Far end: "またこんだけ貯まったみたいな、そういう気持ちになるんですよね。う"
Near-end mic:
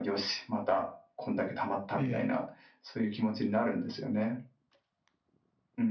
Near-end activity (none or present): present